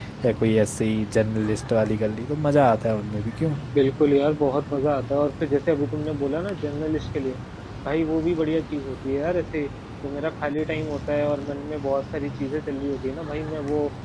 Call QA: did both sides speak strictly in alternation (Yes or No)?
Yes